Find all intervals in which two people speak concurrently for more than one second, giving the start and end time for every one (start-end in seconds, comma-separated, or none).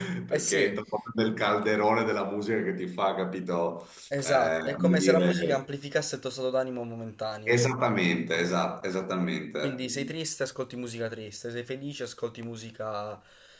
4.2-5.6